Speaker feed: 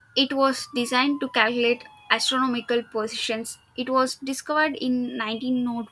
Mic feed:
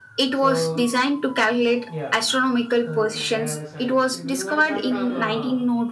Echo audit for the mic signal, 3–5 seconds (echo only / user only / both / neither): both